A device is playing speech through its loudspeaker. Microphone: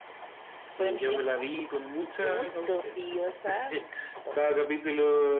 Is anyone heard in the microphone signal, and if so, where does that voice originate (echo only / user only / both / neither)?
echo only